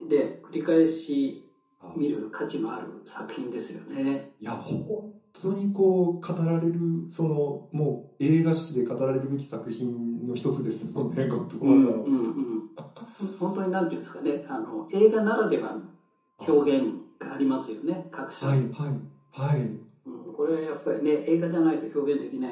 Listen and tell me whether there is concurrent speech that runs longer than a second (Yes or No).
No